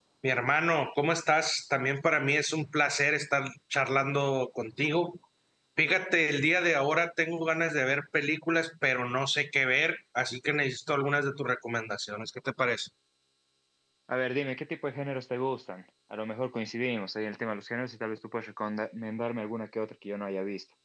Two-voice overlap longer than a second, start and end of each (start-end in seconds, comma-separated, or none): none